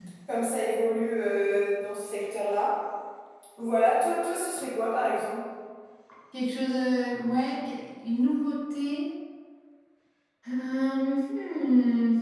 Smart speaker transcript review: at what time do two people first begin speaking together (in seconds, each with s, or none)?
none